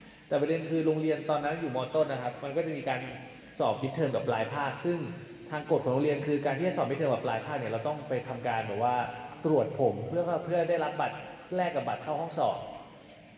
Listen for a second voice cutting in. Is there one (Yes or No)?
No